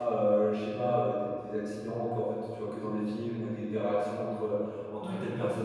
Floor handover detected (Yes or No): No